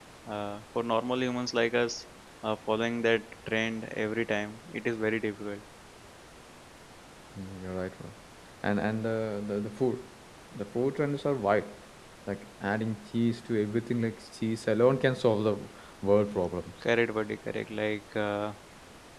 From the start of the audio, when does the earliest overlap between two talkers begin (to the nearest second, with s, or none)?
none